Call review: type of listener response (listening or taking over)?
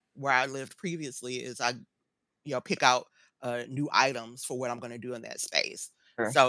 listening